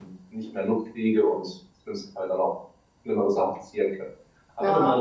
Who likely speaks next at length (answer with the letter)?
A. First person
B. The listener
A